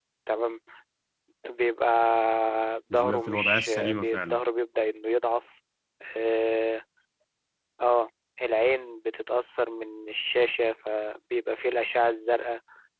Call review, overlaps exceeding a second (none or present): present